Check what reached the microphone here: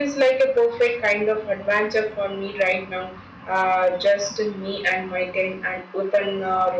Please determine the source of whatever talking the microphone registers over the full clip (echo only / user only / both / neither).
echo only